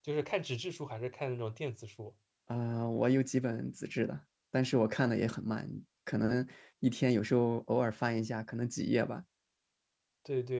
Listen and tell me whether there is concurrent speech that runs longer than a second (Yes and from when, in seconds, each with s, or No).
No